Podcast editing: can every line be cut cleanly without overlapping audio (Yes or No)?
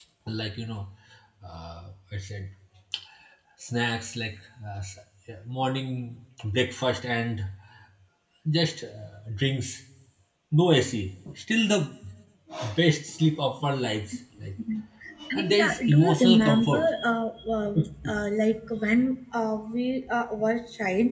No